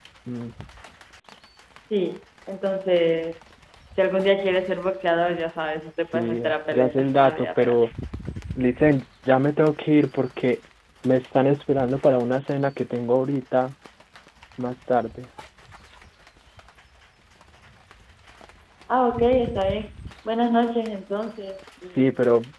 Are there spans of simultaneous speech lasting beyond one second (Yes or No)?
Yes